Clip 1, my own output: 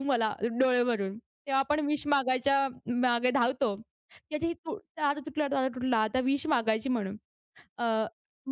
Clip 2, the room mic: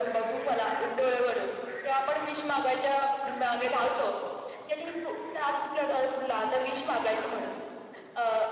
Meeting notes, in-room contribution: none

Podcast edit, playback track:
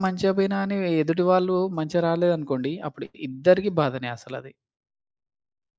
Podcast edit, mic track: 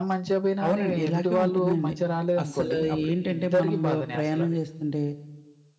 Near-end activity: present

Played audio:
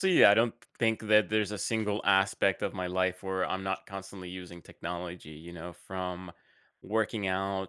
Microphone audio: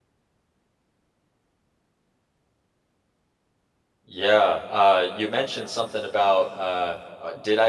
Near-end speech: present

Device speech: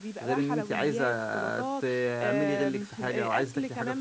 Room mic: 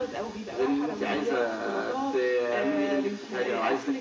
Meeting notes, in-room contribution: none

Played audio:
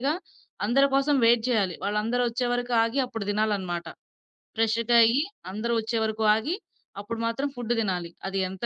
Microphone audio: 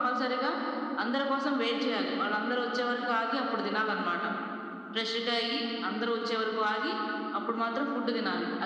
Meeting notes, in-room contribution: none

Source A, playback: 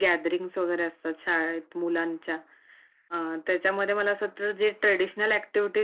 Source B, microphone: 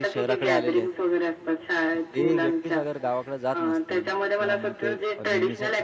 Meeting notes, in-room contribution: present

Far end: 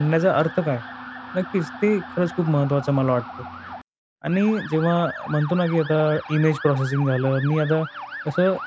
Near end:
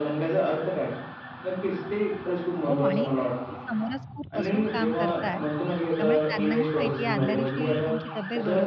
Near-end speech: present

